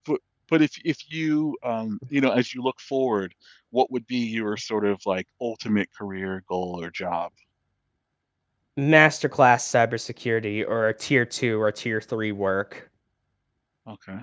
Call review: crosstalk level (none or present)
none